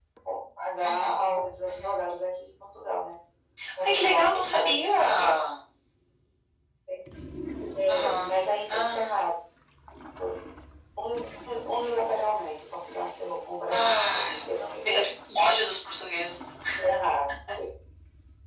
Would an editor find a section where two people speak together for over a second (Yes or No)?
Yes